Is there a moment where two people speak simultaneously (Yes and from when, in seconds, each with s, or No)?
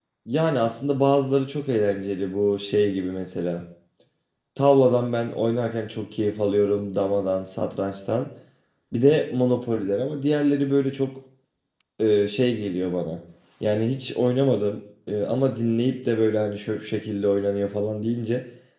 No